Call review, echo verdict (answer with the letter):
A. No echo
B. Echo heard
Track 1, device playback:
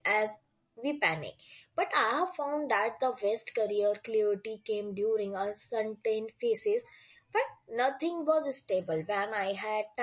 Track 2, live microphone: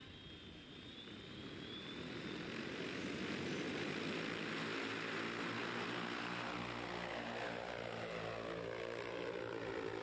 A